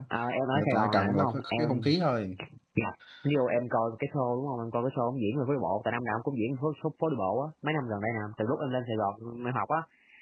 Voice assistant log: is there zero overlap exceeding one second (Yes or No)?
No